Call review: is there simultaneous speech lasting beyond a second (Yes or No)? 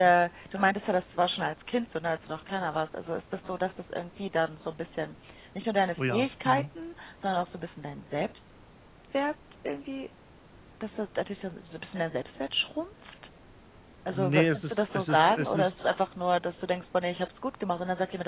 Yes